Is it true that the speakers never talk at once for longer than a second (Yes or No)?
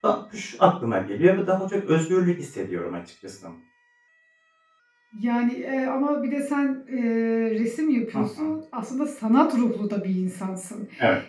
Yes